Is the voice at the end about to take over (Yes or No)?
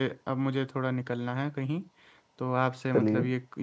No